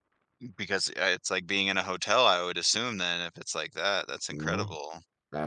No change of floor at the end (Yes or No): No